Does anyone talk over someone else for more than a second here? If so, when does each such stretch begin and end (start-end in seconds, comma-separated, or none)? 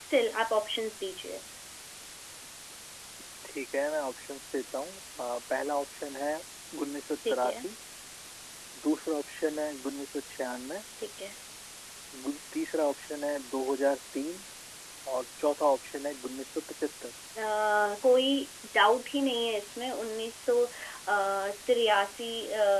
none